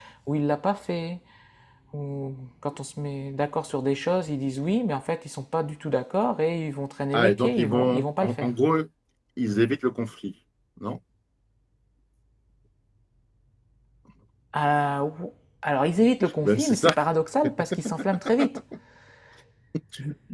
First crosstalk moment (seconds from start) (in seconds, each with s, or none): 7.1 s